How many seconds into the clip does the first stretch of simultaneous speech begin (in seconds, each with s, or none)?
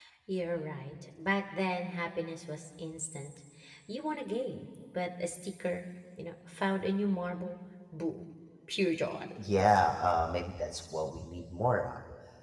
none